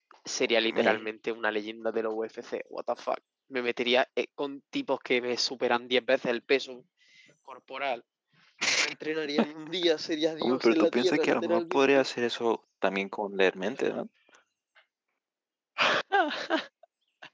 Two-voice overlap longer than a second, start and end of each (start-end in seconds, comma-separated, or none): 10.4-12.0